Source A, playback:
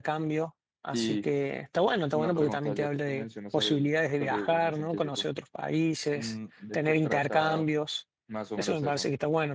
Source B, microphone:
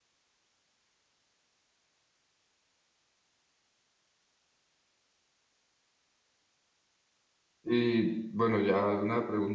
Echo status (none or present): none